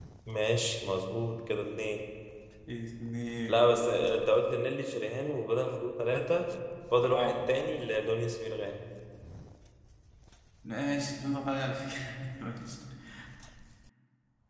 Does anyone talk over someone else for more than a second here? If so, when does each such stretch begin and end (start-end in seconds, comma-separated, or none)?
none